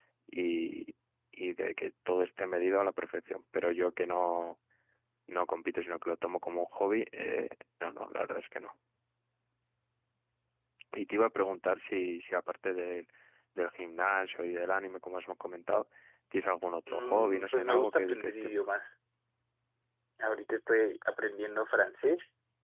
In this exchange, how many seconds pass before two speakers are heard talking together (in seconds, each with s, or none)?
16.9 s